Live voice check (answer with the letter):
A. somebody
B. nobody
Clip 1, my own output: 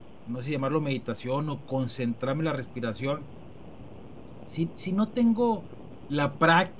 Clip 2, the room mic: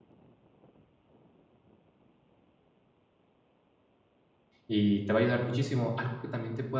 A